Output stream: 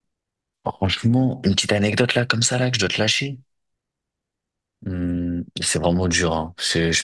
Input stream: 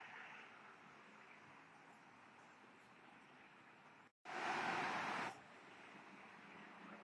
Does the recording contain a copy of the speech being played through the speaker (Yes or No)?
No